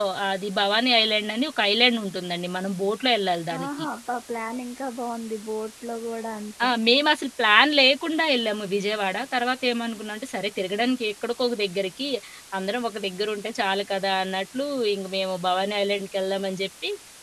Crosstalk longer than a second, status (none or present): none